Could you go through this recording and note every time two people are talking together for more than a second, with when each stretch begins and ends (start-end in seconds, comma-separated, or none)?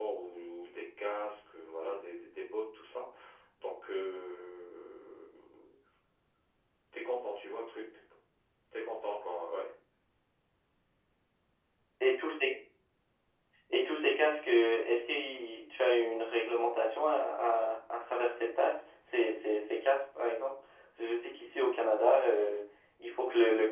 none